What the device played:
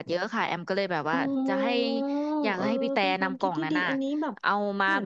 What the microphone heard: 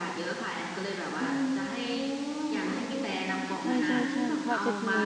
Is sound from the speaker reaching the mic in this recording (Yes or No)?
Yes